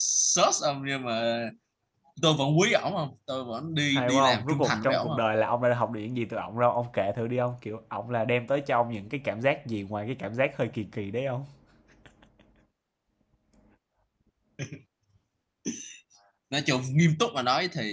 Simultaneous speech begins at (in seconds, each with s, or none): 3.9 s